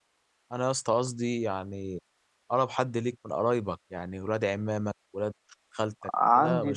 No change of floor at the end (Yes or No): No